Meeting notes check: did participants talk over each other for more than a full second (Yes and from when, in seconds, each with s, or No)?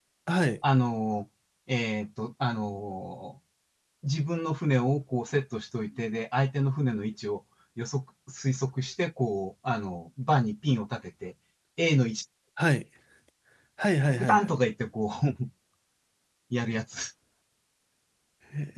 No